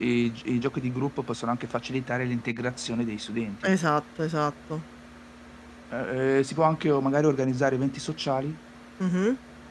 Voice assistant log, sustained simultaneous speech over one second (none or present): none